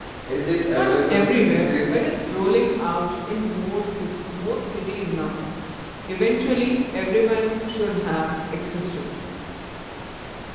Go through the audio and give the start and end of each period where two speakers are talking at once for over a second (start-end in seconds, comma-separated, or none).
0.7-2.0